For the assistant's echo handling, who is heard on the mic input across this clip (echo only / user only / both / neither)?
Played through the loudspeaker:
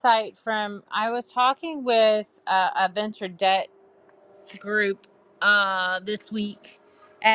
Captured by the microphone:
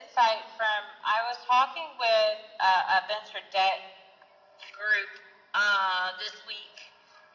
echo only